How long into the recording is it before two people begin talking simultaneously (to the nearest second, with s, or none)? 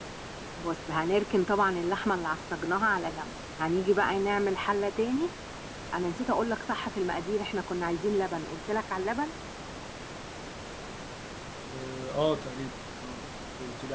none